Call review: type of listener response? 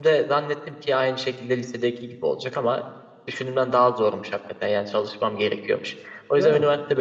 listening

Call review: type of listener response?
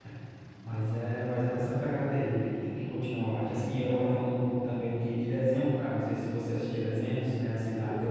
listening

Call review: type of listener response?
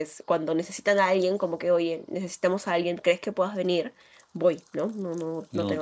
listening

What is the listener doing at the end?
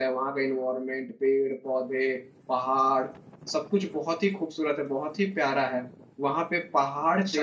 listening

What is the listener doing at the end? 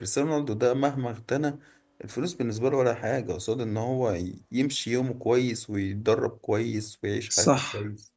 taking over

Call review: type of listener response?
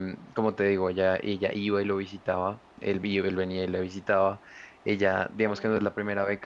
listening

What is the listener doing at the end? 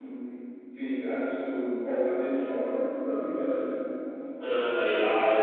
taking over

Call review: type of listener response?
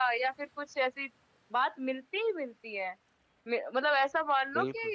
listening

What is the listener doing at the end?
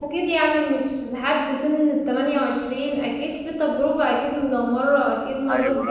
taking over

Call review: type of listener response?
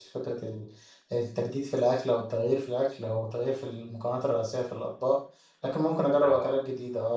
listening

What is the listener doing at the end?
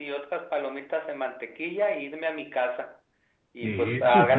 listening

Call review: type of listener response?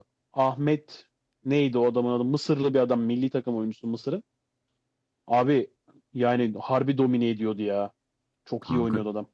taking over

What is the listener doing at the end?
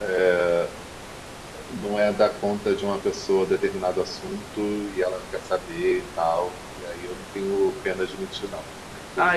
taking over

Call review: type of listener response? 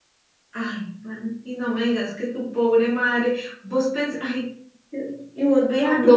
listening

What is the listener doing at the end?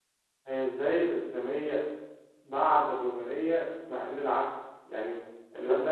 listening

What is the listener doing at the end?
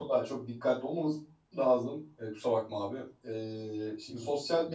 listening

